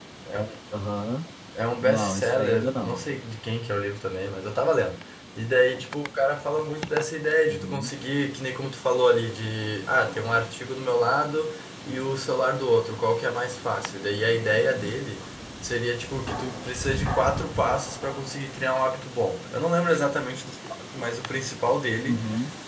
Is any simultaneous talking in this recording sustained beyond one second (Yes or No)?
Yes